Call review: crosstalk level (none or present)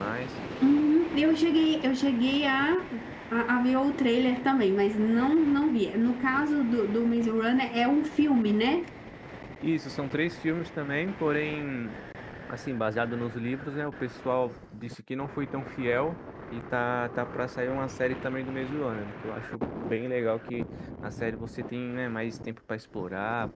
none